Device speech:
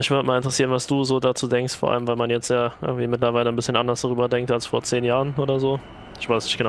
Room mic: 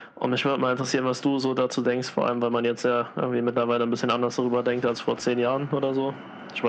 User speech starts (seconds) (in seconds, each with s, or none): none